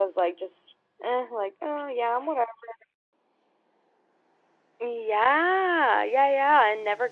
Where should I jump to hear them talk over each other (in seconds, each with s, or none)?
none